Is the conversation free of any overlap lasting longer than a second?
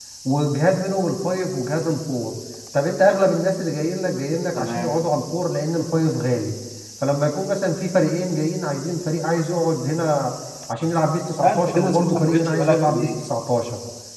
No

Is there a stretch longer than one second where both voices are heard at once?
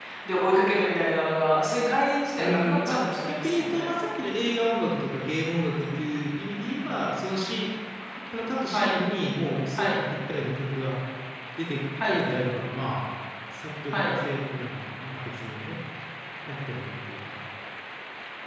Yes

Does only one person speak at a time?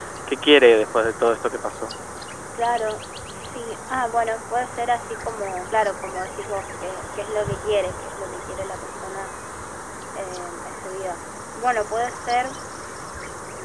Yes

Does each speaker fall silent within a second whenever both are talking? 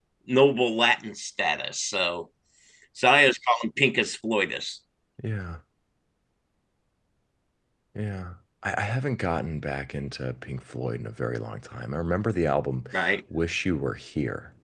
Yes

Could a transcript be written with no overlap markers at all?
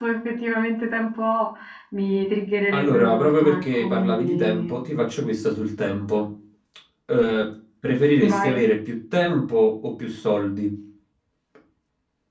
No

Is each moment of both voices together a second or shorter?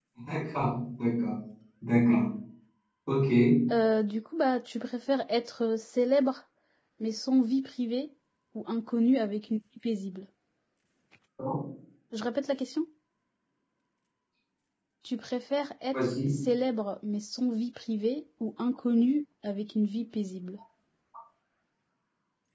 Yes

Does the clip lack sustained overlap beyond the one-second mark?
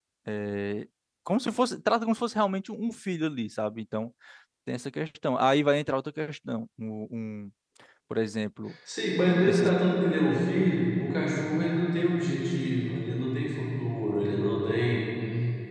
Yes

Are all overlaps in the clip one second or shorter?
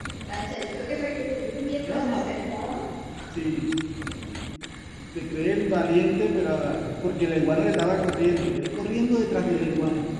Yes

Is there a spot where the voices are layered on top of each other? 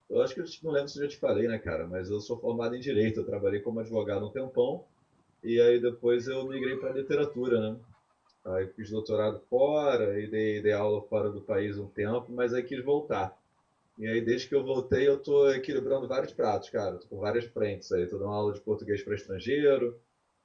No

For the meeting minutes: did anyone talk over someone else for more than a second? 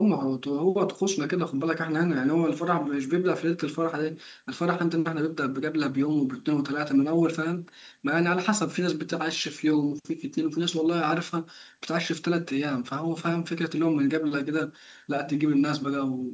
No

